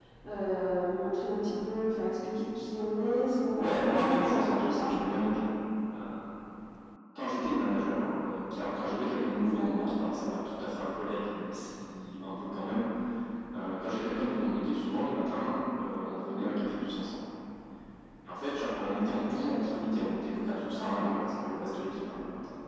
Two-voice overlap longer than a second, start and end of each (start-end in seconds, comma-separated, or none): 3.5-4.9